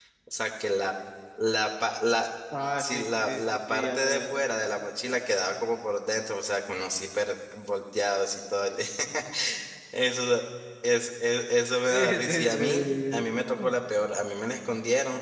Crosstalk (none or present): present